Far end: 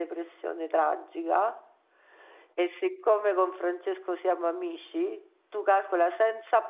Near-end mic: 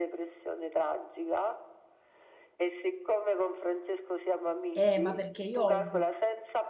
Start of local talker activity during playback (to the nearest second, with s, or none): 5 s